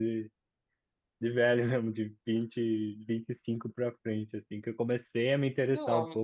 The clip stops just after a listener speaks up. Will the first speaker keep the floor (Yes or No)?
Yes